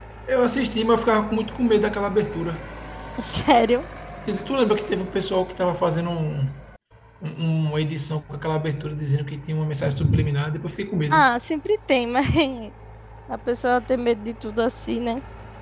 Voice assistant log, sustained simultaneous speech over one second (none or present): none